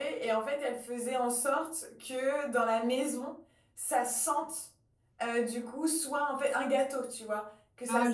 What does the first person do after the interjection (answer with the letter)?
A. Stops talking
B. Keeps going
B